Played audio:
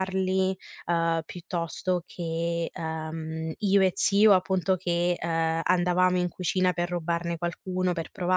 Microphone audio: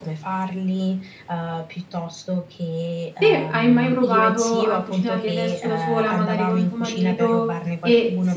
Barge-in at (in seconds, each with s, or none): 3.2 s